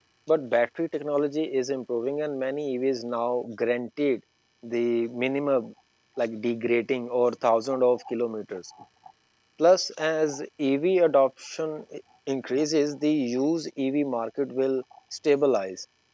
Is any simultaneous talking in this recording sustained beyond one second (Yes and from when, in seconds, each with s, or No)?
No